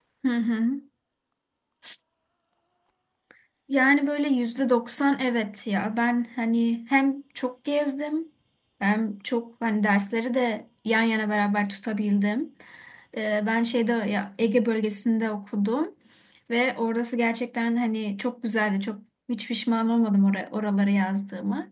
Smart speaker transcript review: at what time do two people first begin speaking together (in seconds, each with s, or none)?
none